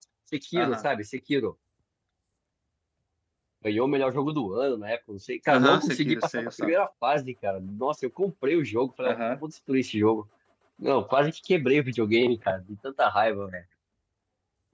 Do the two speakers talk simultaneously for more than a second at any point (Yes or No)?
Yes